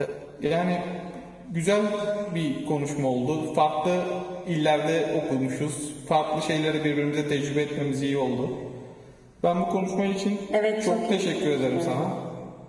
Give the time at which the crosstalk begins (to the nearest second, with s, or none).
11 s